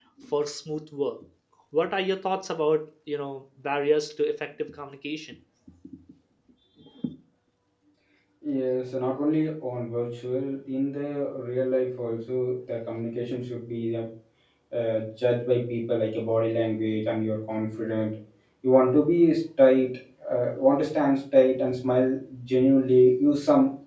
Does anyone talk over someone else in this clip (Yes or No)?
No